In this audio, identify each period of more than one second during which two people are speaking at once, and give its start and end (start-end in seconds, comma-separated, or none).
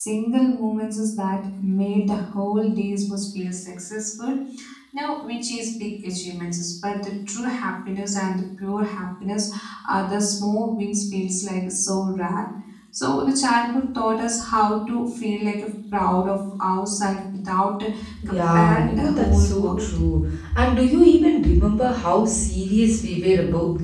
18.3-20.0